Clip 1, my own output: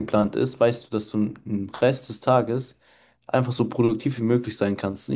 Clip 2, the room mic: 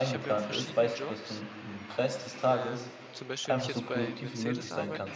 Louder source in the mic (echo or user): echo